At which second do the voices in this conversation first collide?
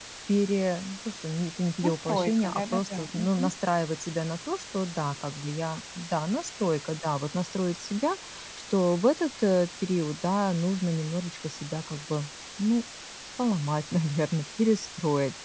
1.8 s

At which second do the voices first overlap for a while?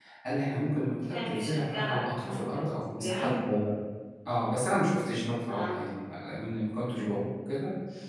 1.1 s

